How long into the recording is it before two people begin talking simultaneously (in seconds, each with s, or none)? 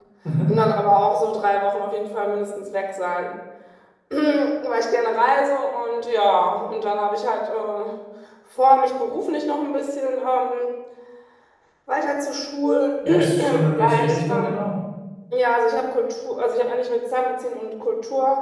13.0 s